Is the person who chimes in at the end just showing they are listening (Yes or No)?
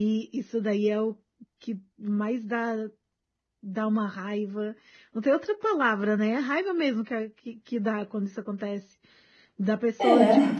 Yes